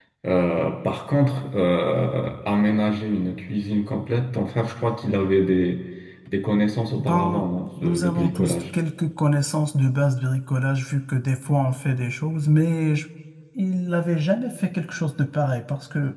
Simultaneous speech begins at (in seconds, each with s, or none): 7.0 s